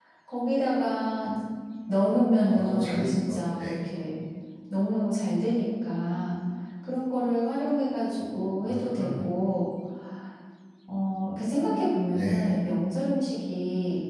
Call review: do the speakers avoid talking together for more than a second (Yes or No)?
No